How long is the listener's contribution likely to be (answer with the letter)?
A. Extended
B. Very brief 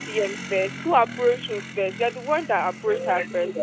A